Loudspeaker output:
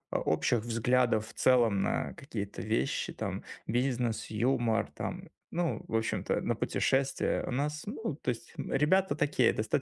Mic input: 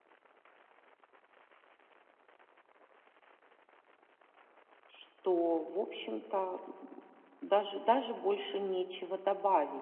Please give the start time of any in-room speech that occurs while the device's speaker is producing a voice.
4.9 s

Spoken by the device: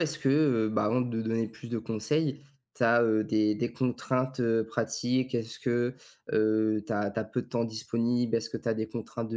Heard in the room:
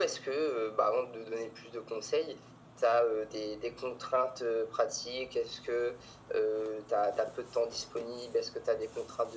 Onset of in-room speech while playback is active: none

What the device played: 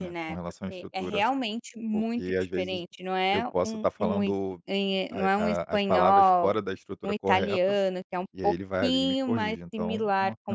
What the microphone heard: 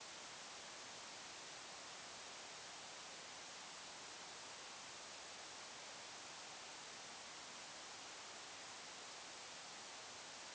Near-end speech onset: none

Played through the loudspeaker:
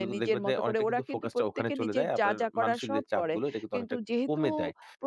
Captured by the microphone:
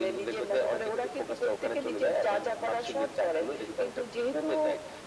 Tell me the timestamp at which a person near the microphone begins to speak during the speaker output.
none

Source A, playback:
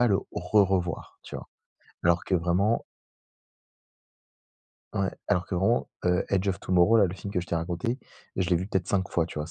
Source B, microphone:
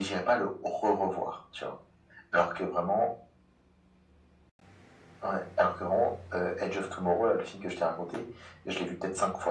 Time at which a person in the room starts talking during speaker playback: none

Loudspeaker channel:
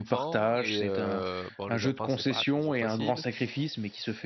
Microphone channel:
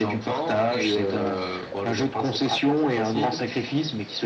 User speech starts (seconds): none

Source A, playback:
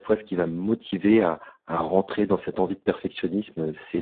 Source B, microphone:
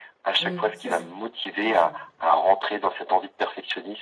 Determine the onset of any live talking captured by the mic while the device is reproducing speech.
0.4 s

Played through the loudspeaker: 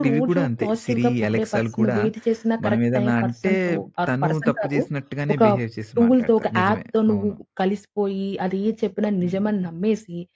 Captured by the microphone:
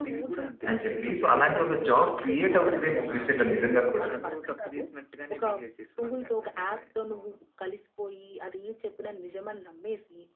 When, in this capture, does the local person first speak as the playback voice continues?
0.7 s

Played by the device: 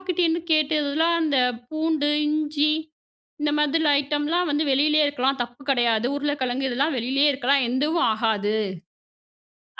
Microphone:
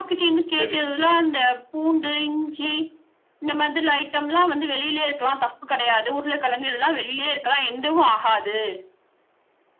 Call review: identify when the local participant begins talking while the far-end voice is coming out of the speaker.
0.6 s

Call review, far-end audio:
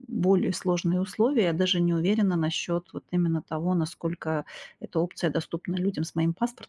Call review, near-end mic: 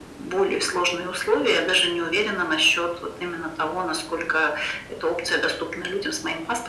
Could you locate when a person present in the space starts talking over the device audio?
none

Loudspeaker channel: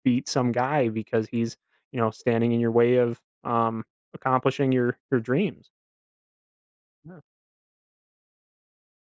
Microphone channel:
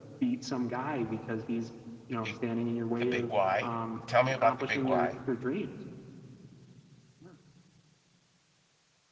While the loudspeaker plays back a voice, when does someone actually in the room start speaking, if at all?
2.1 s

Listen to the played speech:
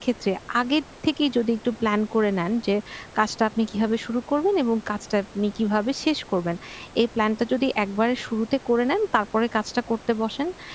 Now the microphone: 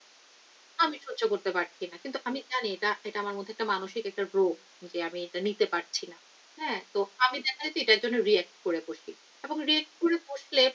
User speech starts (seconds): 0.8 s

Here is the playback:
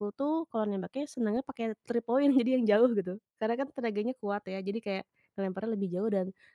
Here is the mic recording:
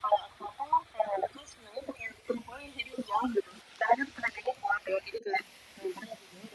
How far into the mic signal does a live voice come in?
none

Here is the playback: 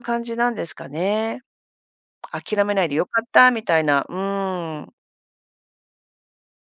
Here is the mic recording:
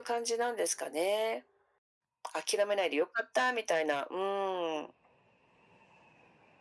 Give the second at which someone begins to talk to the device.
none

